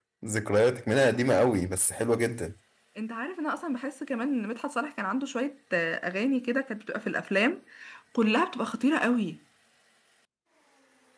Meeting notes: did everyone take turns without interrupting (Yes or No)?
Yes